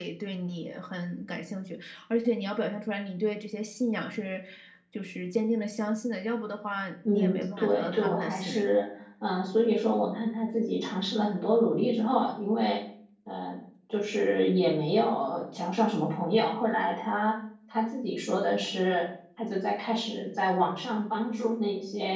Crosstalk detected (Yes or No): Yes